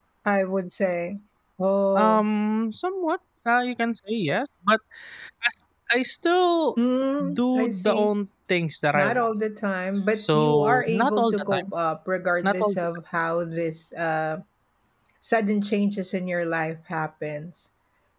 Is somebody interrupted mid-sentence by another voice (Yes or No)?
Yes